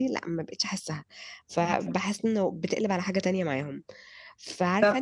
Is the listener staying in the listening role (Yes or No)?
Yes